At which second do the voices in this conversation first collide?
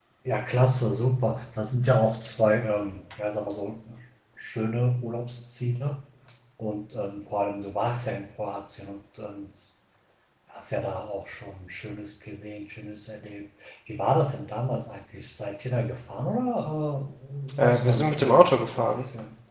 18 s

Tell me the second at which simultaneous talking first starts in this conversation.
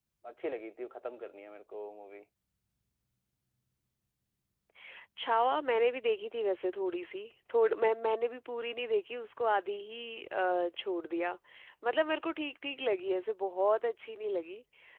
none

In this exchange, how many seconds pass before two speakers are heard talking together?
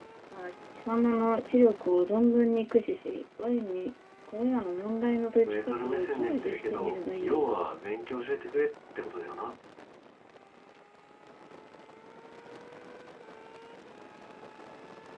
5 s

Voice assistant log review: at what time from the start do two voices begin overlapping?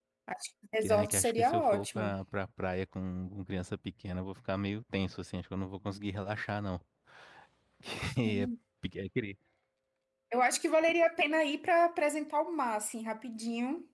1 s

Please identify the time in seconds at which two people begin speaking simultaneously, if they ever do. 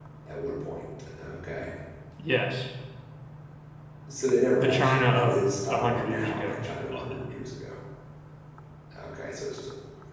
5 s

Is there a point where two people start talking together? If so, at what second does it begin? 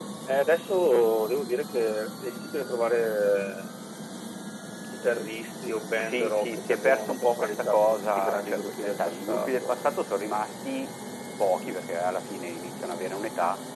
6 s

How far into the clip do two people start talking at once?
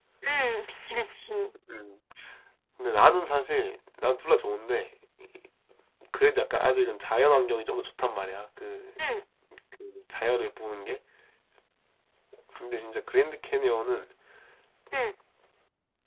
none

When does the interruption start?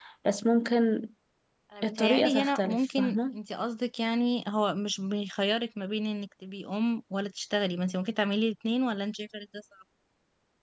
2 s

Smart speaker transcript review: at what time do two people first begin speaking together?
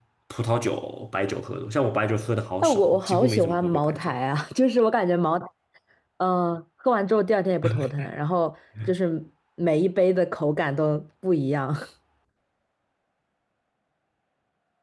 3 s

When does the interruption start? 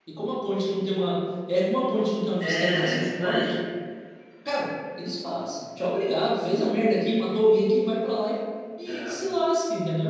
2 s

